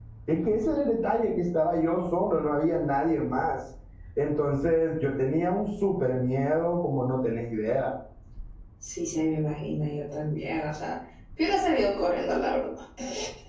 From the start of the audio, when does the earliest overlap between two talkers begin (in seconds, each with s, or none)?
none